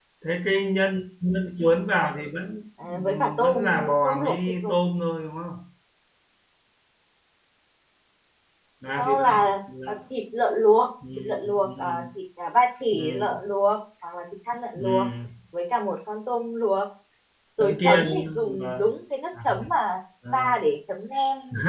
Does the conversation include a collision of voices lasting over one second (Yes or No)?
Yes